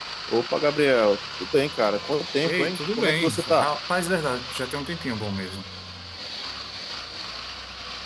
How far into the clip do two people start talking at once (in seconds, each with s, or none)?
2.4 s